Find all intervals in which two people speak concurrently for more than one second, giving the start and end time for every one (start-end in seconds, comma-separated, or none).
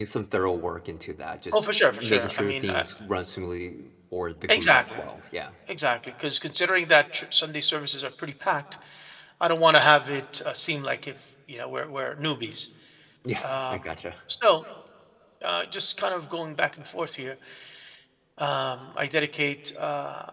1.5-2.8